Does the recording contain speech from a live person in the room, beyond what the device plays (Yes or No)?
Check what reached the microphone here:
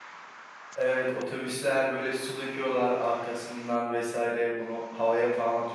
Yes